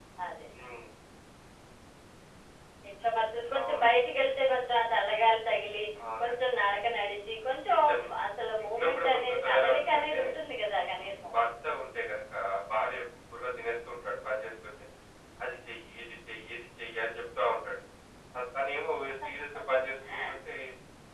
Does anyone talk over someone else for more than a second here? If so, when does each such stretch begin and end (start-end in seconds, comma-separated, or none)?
8.6-10.2